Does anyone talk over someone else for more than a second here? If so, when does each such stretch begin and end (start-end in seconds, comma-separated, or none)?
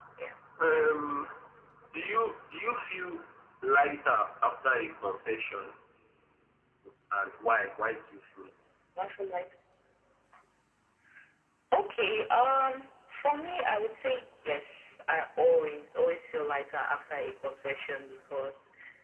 none